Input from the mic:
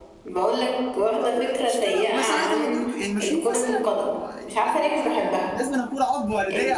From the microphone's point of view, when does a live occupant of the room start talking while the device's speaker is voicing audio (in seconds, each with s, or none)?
1.2 s